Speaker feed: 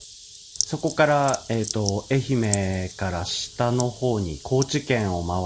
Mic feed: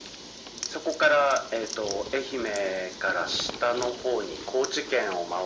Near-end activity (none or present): none